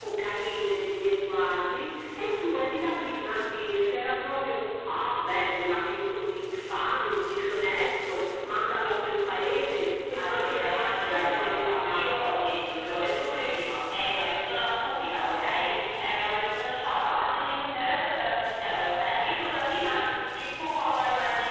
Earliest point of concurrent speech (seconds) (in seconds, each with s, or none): 10.1 s